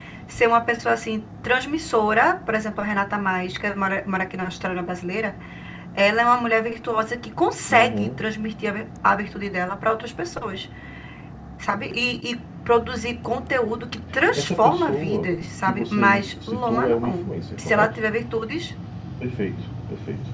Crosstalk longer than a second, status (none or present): present